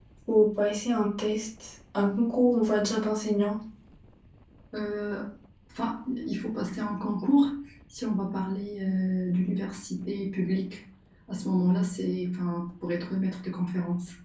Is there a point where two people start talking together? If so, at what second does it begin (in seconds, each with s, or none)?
none